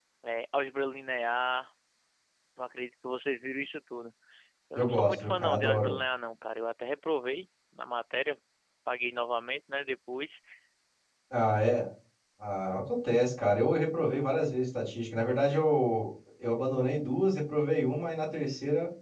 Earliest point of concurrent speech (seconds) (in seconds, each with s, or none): 4.8 s